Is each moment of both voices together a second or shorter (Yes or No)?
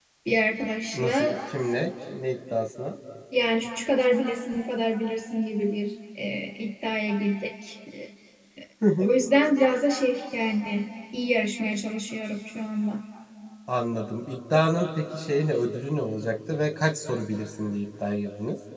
Yes